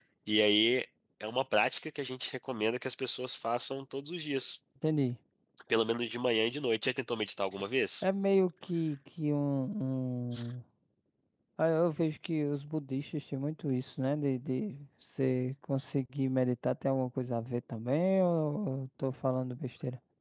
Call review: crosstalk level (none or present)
none